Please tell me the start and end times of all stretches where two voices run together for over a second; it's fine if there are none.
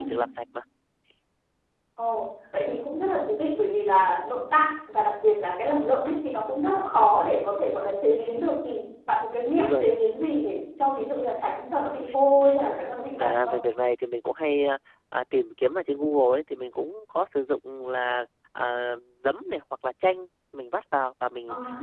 none

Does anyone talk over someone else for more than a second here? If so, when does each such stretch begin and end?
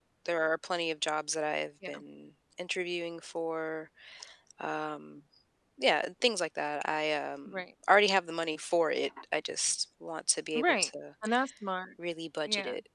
none

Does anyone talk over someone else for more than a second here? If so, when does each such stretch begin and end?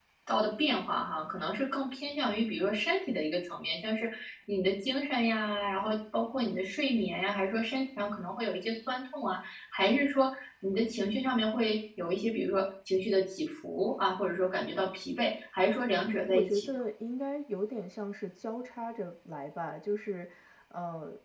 none

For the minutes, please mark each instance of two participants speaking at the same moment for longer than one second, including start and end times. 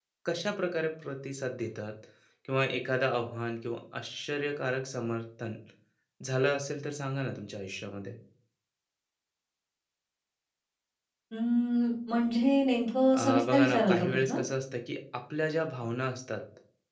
13.1-14.4

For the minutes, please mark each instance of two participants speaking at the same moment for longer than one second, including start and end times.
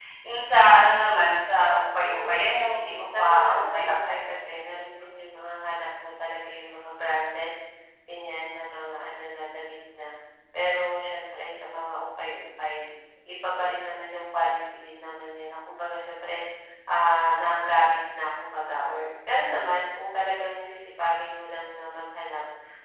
2.0-4.2

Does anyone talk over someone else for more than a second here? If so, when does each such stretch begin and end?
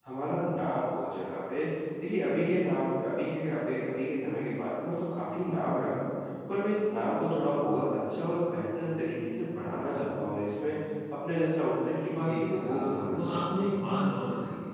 12.1-13.7

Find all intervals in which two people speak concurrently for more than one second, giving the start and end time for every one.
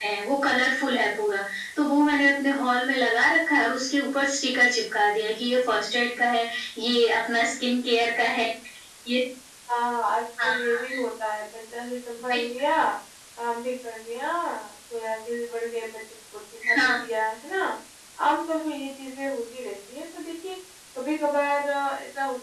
none

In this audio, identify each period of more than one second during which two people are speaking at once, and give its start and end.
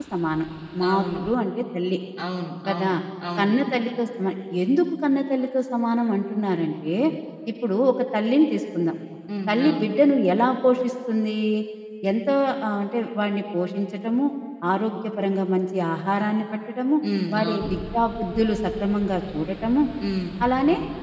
none

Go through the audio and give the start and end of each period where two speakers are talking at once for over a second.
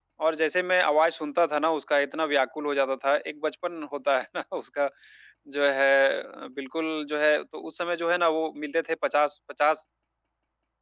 none

